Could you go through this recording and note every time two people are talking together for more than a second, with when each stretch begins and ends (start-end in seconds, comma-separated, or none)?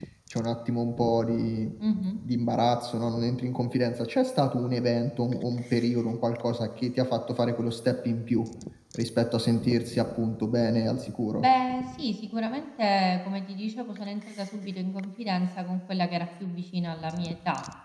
none